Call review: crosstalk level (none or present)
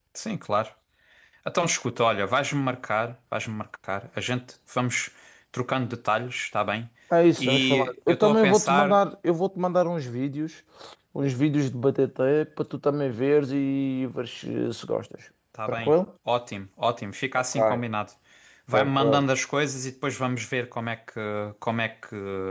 present